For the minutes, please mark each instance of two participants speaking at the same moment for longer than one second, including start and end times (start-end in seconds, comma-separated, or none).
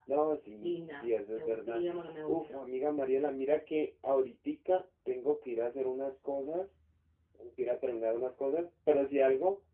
0.6-1.8